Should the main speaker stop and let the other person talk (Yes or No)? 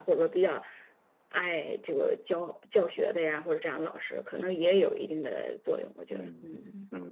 Yes